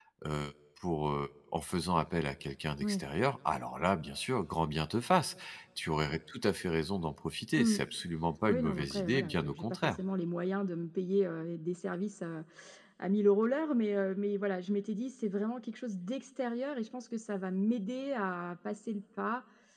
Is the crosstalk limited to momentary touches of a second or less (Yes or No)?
No